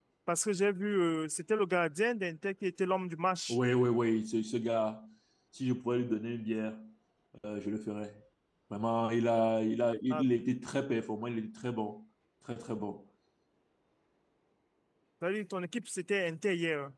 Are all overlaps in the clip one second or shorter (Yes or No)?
Yes